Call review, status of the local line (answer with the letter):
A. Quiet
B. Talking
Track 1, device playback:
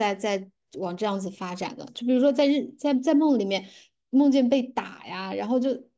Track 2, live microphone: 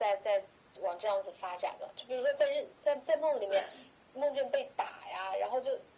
B